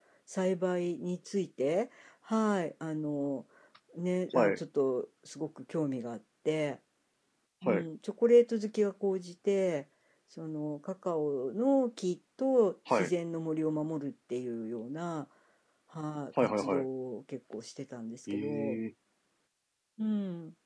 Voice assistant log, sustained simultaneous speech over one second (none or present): none